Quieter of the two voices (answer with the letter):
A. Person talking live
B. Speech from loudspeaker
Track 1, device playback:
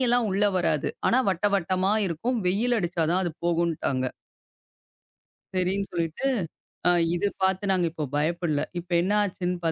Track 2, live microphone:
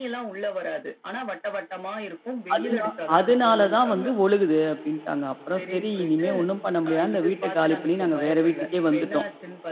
B